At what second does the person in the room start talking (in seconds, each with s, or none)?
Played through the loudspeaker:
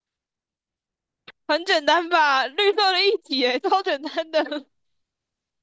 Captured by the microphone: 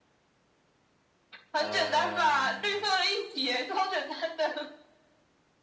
1.6 s